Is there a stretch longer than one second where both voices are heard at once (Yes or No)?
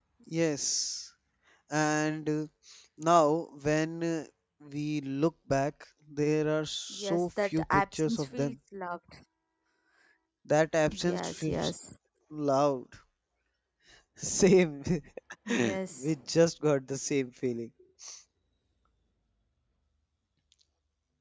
Yes